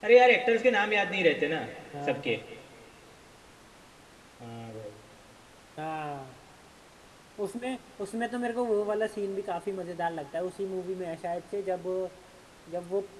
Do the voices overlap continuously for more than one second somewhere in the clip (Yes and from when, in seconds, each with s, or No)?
No